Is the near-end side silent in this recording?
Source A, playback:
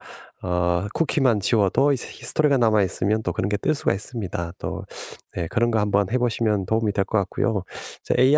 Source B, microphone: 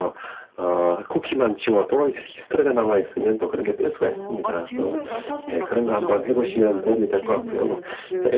No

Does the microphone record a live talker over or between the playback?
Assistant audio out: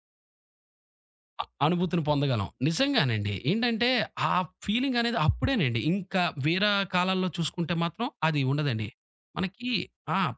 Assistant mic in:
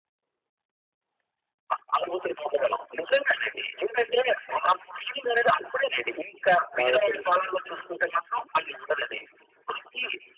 Yes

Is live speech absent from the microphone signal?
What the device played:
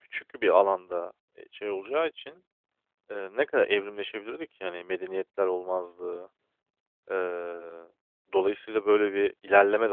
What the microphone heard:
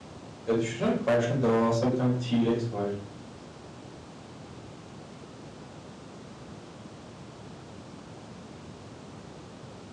No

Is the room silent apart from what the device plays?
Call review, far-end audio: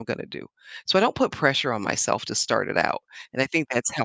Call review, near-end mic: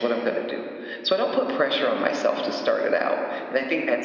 Yes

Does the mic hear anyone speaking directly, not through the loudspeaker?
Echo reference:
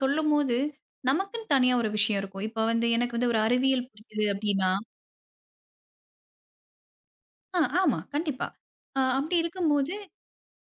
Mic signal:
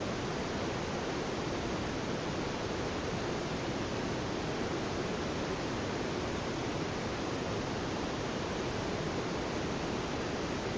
No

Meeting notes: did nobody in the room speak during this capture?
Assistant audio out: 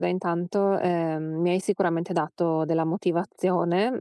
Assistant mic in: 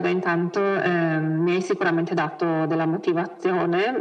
Yes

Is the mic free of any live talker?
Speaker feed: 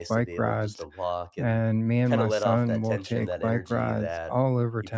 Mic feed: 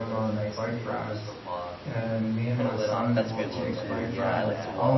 No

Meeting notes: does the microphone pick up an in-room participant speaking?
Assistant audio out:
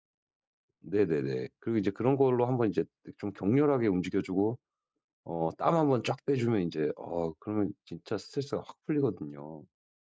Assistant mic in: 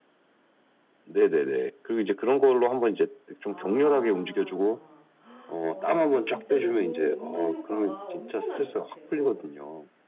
Yes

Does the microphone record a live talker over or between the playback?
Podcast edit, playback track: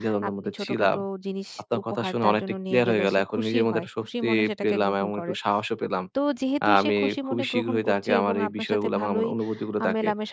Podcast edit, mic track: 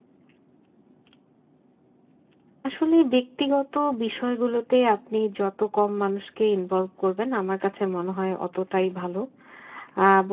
Yes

